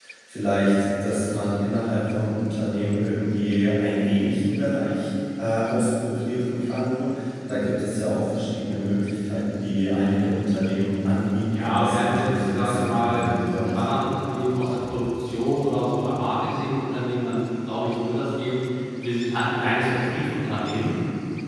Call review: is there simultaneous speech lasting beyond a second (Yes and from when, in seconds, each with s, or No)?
Yes, from 11.4 s